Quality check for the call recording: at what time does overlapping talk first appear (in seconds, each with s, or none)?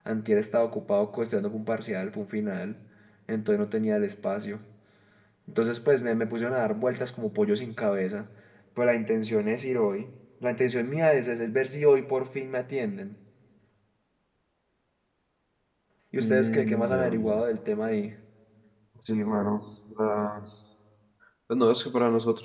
16.2 s